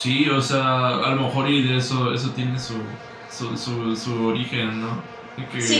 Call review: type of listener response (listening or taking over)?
taking over